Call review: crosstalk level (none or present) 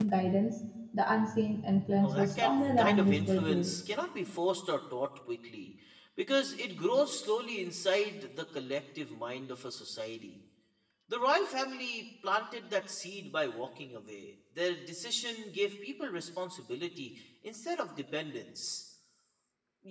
present